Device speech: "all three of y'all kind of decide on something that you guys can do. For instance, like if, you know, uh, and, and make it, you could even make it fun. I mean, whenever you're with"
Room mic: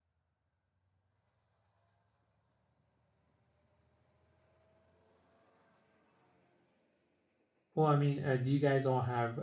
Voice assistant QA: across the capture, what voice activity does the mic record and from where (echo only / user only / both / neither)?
user only